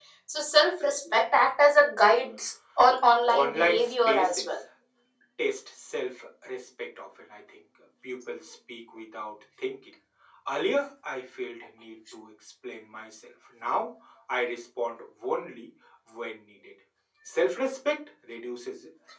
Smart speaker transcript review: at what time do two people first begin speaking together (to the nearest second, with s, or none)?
3 s